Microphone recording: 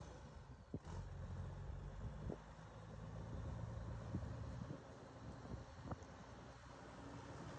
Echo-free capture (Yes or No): Yes